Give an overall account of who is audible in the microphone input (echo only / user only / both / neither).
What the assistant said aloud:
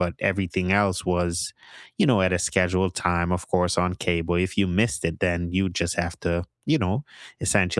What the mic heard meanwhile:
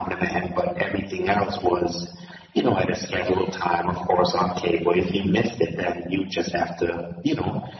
both